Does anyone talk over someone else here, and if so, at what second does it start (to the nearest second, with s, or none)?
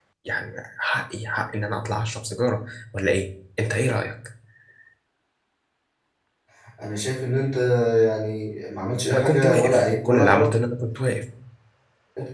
9 s